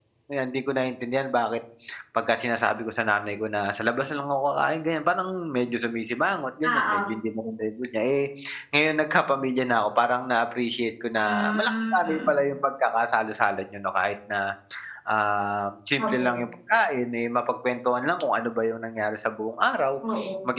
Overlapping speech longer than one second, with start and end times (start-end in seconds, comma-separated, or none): 11.2-12.5